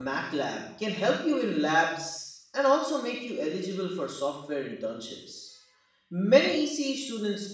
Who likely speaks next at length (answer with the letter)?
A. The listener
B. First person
B